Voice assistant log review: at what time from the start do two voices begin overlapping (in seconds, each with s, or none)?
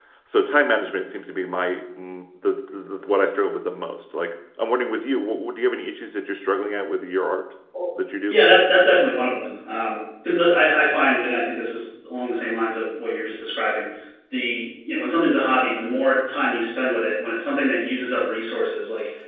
none